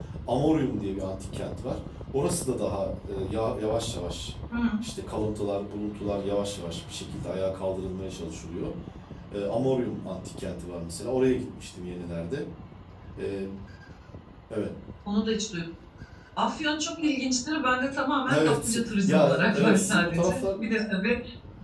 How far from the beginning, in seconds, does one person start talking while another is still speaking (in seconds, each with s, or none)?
18.3 s